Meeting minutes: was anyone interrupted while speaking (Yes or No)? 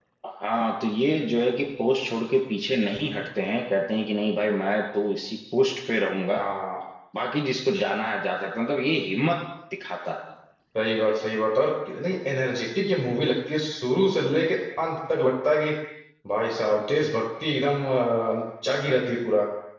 No